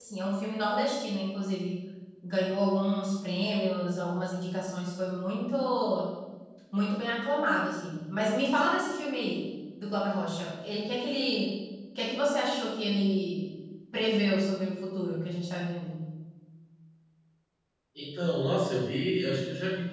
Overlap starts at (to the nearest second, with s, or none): none